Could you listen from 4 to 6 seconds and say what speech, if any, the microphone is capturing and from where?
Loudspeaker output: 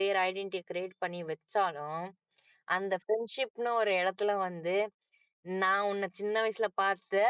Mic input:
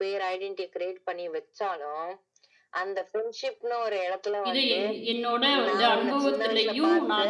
both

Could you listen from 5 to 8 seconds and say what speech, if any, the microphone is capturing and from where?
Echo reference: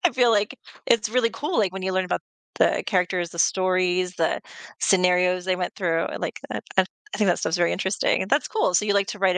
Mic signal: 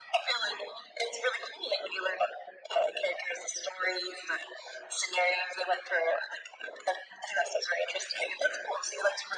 echo only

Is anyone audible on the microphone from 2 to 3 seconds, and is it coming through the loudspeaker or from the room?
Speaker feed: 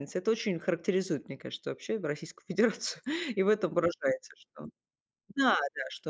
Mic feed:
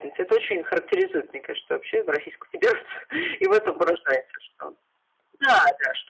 echo only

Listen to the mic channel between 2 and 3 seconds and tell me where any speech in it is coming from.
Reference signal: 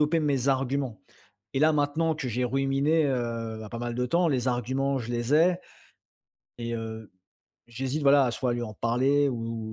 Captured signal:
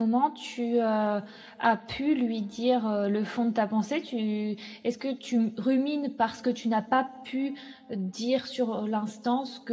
user only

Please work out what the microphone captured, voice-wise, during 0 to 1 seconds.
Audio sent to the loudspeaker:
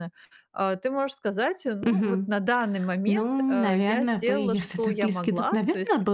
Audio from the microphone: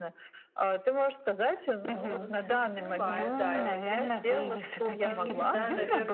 echo only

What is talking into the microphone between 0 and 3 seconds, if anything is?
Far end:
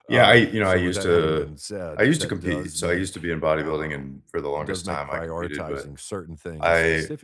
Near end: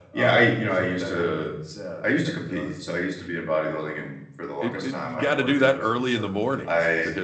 echo only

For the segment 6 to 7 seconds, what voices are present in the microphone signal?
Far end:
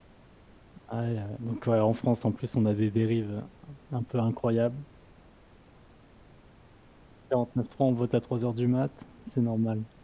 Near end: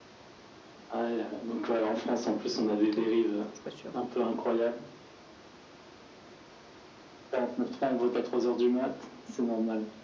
neither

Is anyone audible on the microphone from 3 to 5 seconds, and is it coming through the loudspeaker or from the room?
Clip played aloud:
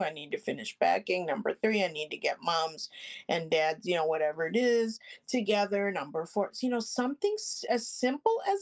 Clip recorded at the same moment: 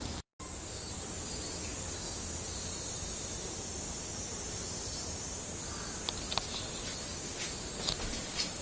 neither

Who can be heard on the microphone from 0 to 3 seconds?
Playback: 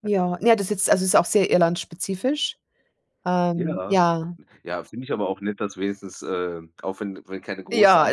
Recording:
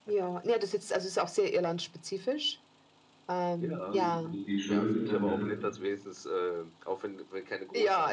echo only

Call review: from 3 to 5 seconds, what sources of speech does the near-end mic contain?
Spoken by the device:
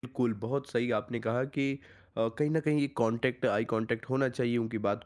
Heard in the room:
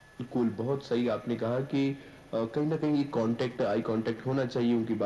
echo only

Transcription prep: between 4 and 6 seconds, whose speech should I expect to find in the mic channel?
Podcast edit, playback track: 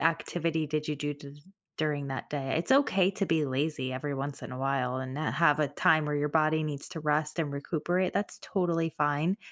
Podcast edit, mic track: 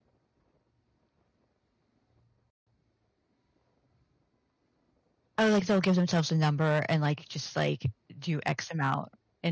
user only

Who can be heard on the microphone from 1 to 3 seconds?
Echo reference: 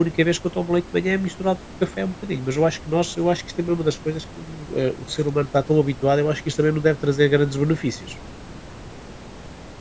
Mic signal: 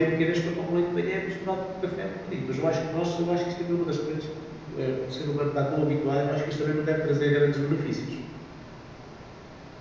echo only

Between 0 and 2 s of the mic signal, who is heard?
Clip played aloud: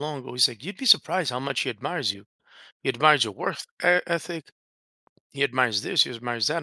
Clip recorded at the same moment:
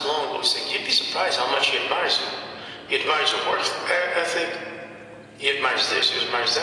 echo only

